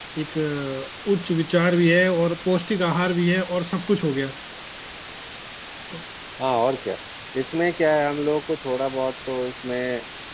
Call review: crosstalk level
none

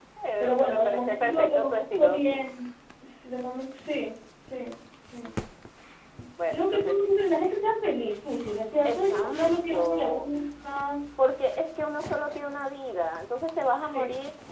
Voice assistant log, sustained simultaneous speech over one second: present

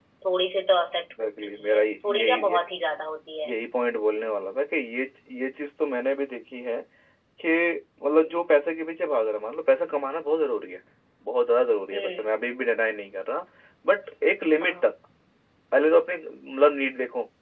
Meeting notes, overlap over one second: present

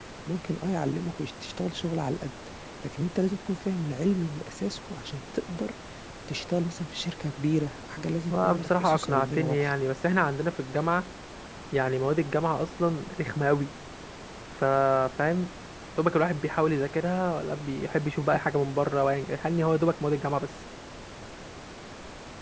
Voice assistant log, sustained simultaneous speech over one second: present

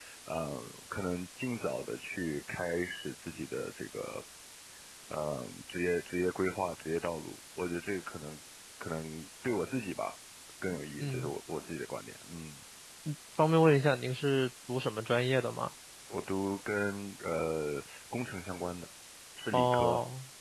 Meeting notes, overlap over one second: none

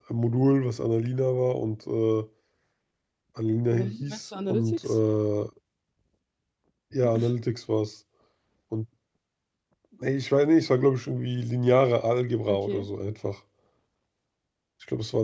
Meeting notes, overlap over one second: present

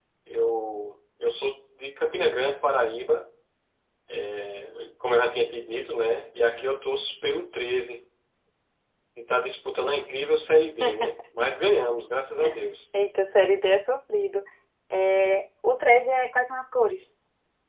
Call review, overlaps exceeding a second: none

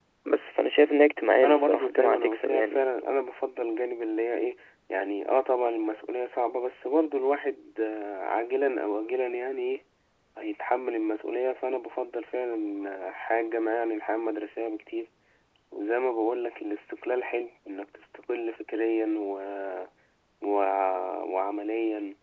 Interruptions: present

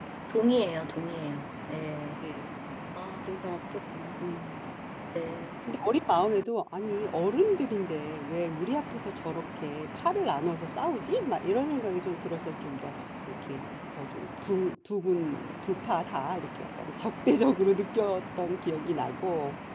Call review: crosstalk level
none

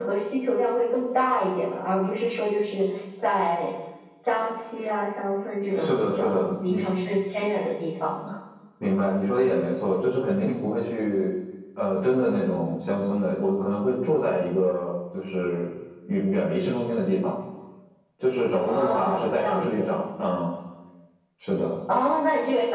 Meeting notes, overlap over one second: present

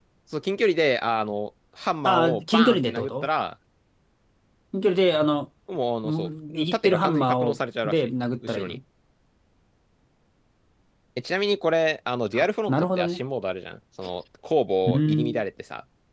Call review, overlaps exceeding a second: present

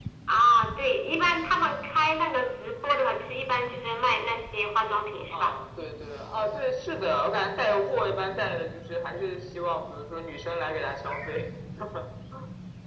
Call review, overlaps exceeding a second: none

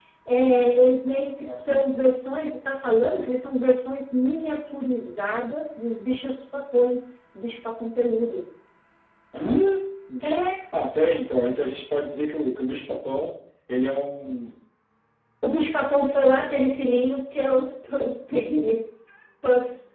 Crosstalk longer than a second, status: none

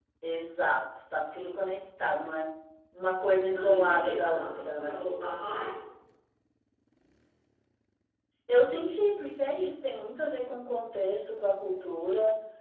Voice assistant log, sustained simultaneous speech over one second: present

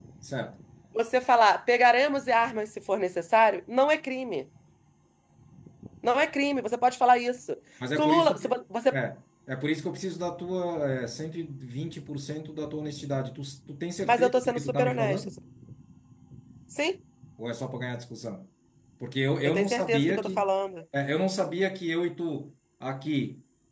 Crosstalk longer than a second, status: present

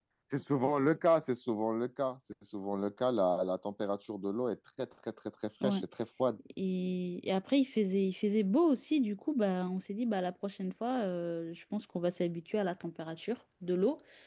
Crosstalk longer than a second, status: none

